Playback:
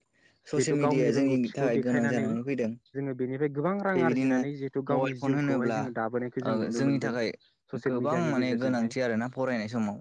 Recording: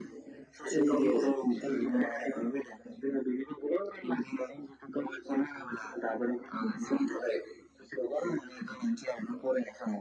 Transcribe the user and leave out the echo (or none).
none